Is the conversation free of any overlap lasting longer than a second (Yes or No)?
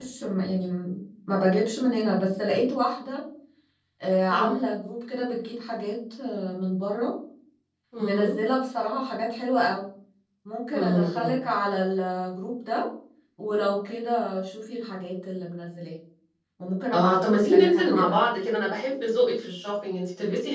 No